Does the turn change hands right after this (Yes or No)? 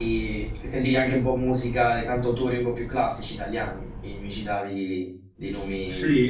Yes